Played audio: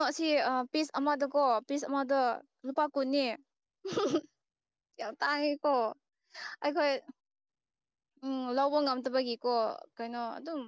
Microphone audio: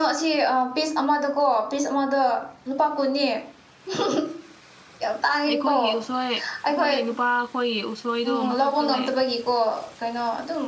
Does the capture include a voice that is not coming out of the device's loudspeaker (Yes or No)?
Yes